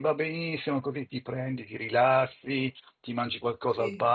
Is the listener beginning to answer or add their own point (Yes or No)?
No